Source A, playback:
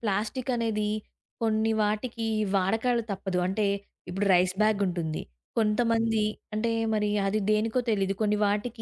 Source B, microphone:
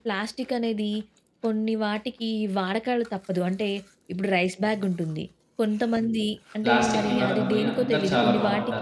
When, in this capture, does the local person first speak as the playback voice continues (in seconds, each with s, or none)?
6.6 s